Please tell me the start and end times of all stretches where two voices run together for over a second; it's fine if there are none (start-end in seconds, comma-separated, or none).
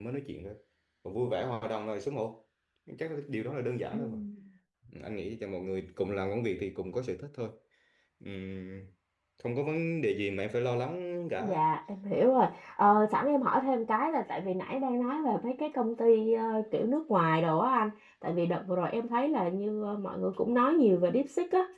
none